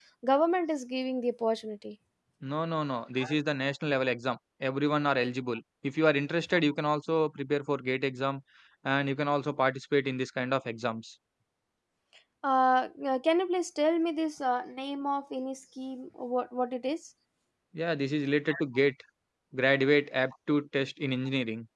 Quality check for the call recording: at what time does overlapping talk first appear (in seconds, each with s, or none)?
none